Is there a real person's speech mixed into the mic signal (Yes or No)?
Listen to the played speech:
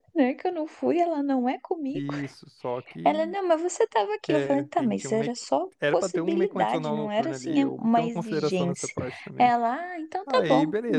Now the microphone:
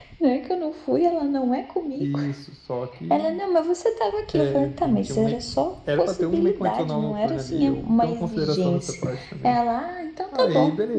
No